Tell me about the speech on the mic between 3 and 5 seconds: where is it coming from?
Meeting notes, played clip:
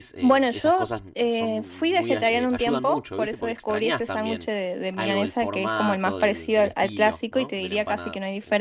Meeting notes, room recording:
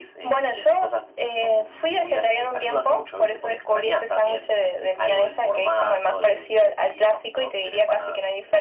echo only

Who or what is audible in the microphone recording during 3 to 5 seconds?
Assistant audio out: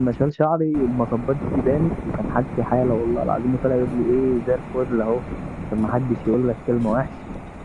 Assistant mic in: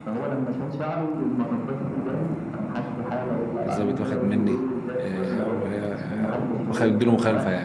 both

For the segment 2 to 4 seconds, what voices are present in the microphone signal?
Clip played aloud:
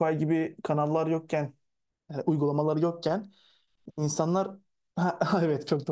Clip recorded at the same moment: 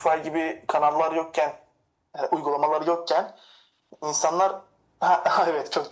echo only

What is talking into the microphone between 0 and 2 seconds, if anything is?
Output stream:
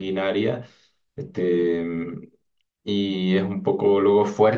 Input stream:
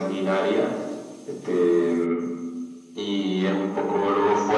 echo only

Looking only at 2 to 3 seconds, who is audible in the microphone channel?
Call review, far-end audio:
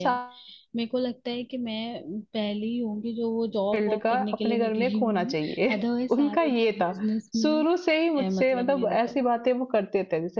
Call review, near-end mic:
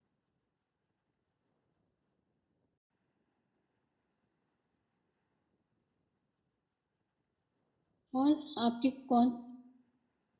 neither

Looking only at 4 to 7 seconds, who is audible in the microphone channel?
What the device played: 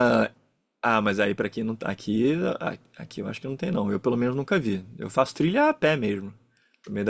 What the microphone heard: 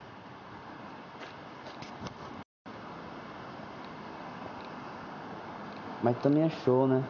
user only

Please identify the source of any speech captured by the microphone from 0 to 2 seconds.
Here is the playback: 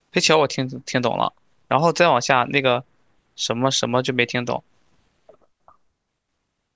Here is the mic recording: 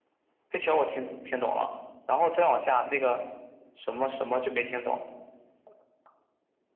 echo only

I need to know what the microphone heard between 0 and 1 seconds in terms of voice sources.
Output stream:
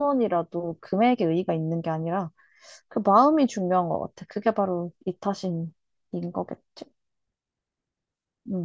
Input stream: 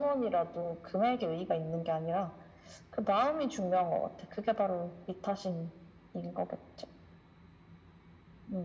echo only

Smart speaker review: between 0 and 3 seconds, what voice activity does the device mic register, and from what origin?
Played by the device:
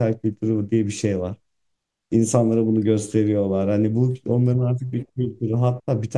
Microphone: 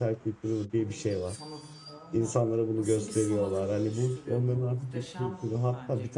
both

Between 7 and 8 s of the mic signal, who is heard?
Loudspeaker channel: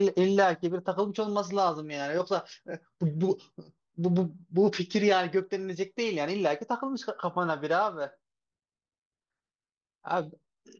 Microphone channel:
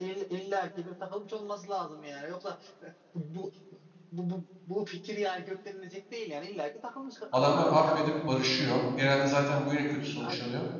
both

